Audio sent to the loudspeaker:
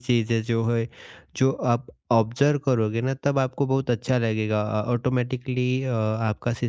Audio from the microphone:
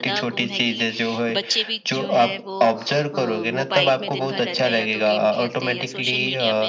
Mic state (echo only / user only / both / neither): both